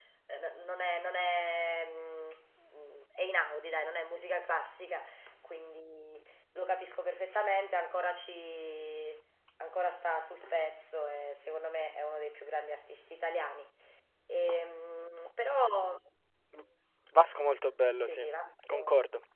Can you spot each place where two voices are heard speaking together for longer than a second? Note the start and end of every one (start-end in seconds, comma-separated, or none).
none